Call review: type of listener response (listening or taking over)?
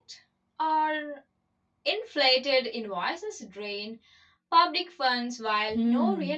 taking over